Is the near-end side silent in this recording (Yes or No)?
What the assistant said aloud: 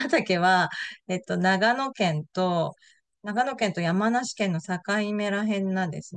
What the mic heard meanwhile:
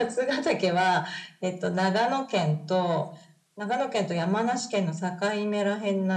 Yes